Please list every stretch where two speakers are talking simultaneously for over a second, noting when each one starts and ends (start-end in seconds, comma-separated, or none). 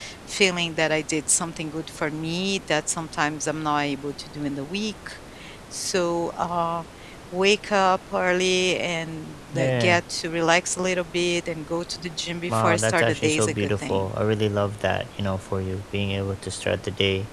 12.5-14.1